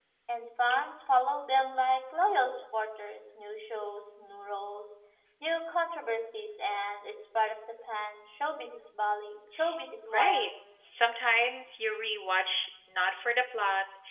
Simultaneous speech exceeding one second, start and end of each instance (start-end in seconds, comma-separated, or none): none